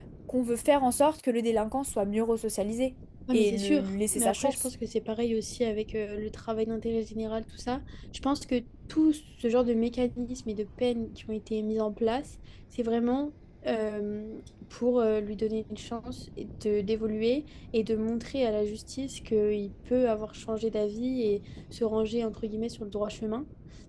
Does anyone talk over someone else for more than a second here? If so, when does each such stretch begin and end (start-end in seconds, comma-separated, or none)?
3.3-4.7